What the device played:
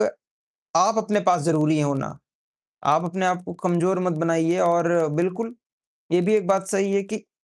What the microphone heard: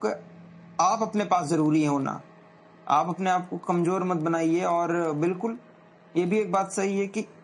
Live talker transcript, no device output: none

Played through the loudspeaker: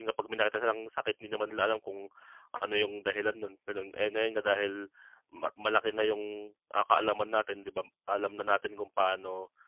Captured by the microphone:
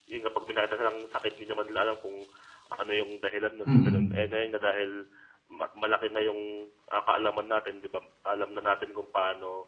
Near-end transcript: Mm.

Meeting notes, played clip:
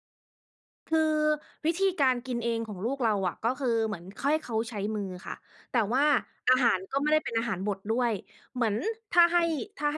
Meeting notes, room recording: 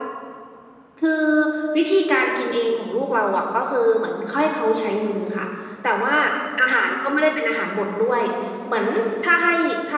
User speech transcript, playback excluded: none

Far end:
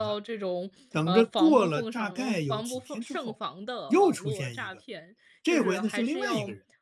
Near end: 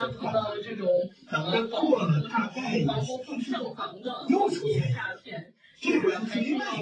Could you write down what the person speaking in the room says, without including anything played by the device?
none

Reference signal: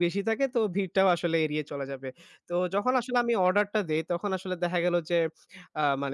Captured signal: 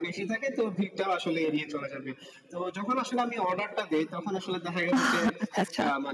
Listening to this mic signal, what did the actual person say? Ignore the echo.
আহ! আচ্ছা, আচ্ছা।

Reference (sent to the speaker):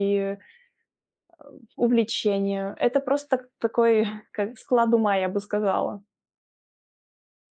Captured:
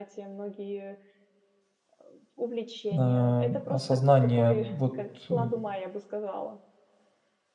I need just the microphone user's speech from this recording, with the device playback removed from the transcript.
а, осознания вот, э,

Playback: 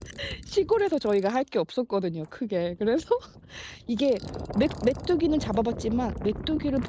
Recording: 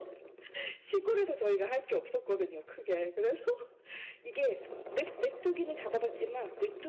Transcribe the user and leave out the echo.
none

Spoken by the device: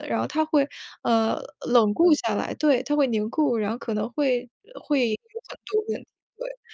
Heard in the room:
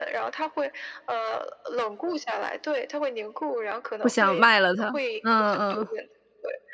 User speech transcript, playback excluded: 不想卖了它，嗯嗯嗯。

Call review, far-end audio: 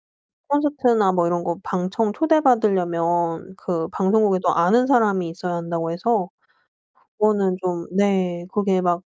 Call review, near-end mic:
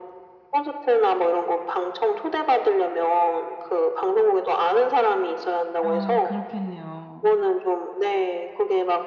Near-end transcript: 아 그렇겠네요.

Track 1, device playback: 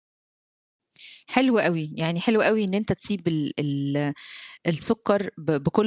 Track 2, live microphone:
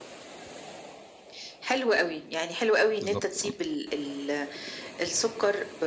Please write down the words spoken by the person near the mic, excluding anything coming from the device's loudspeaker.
بالضبط. امم.

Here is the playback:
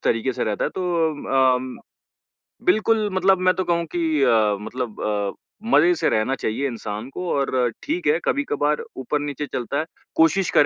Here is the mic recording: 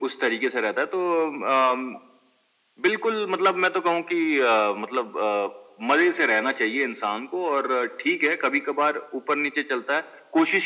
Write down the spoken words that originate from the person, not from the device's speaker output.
none

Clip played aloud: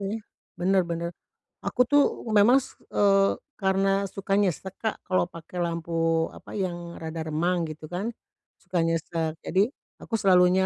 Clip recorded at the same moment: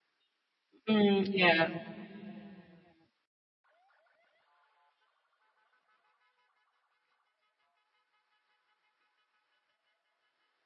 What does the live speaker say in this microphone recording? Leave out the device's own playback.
Mmm, iya.

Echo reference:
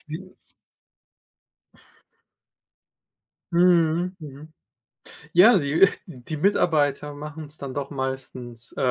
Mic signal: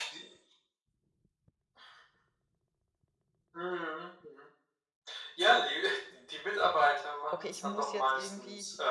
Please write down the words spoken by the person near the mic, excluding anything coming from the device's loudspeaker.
„Okay, ich muss jetzt irgendwie,

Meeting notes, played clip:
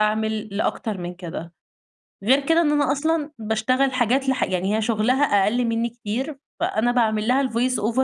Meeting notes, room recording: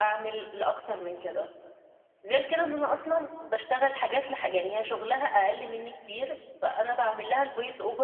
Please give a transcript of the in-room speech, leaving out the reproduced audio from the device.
none

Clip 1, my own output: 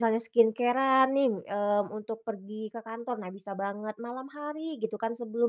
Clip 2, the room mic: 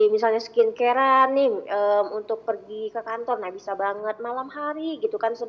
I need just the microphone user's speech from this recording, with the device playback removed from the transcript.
none

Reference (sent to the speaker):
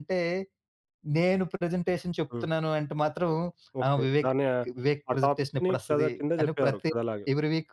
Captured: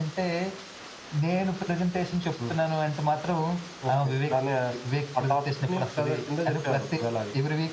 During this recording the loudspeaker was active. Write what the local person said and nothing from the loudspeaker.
none

